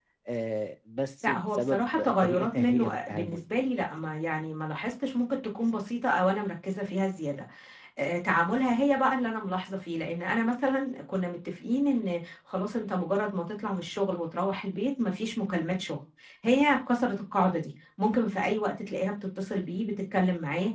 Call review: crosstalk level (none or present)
present